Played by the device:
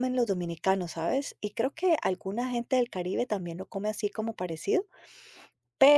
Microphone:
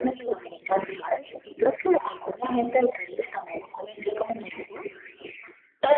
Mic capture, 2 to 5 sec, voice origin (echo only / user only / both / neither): echo only